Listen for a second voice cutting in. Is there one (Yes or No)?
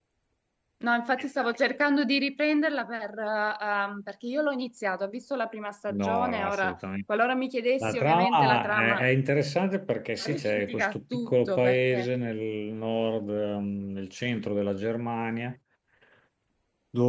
Yes